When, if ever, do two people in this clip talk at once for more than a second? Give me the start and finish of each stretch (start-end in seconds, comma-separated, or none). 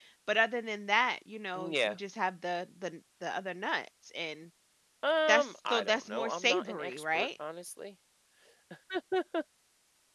5.3-7.3